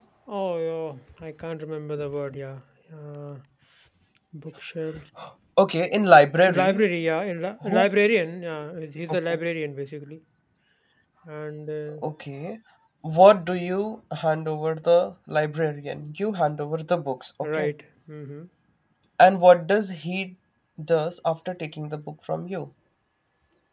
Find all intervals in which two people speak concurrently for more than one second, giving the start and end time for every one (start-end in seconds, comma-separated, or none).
none